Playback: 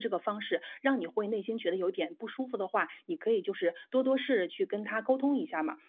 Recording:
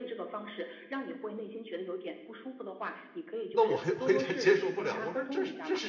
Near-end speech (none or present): present